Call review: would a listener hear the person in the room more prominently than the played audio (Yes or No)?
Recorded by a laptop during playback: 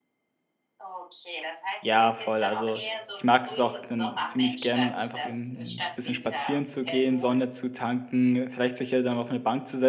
Yes